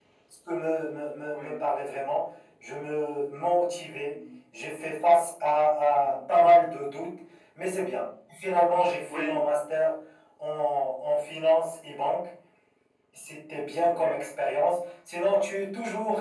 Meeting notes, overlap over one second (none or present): none